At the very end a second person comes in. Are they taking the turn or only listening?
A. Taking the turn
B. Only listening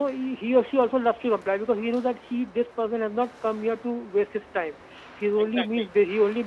B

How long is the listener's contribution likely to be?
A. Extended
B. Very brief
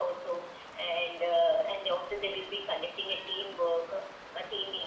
B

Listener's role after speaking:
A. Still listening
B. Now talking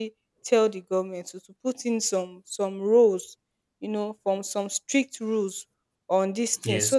A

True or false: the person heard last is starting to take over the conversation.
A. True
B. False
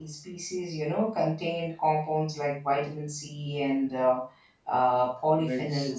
A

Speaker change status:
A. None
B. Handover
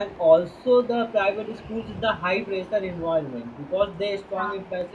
A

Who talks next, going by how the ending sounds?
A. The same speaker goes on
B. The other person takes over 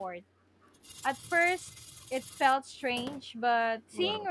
A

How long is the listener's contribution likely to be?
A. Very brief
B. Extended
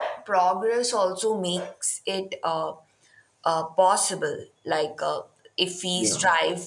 A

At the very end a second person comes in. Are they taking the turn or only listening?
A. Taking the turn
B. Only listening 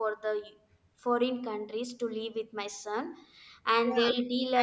A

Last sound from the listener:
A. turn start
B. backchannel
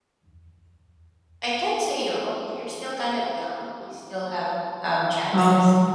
A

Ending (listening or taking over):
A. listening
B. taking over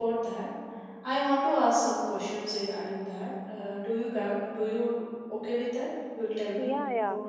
B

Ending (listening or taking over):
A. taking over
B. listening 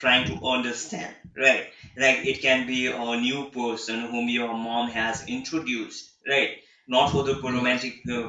B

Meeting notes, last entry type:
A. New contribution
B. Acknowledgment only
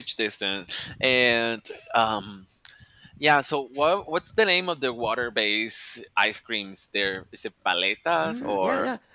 A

